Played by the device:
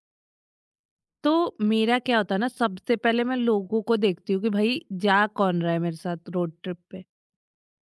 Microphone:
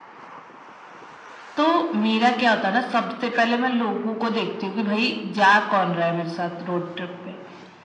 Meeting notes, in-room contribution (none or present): none